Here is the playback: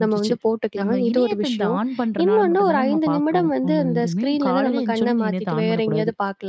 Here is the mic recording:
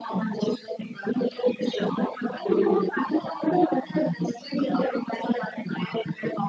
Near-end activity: none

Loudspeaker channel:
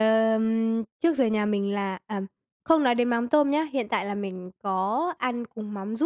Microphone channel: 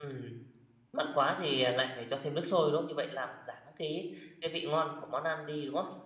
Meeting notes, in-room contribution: present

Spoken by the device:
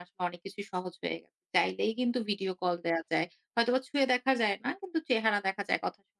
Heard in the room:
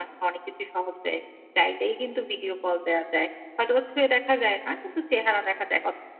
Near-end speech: none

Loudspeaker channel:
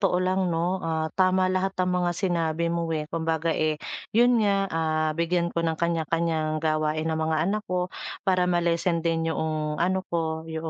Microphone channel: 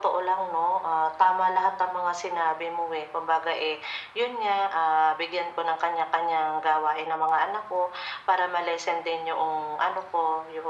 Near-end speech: none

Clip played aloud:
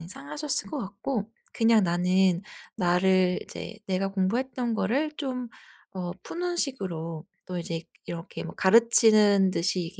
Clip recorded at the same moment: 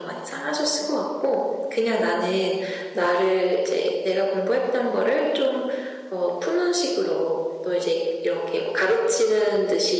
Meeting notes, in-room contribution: none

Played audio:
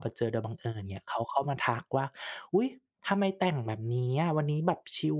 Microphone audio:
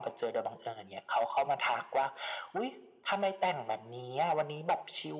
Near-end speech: none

